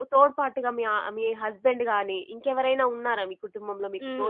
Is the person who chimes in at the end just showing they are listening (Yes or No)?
No